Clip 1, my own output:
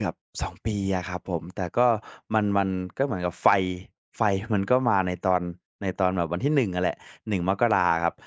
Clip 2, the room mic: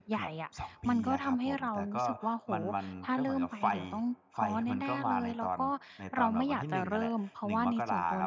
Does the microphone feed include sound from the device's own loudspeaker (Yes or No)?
Yes